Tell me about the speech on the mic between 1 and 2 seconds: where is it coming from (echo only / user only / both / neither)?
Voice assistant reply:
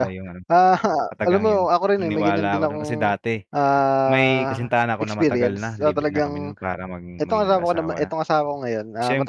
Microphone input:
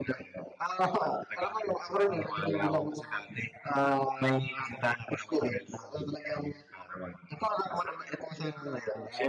echo only